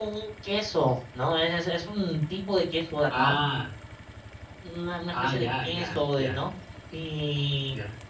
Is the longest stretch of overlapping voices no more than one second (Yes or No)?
No